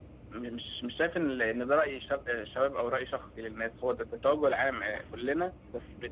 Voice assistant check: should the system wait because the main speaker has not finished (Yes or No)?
No